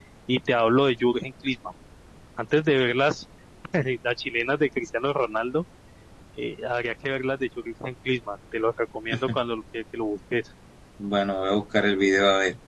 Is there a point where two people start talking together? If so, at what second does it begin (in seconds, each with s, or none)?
none